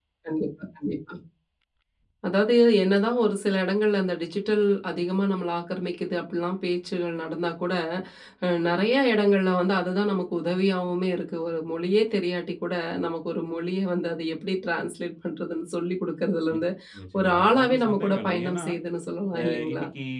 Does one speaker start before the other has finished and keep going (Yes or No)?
Yes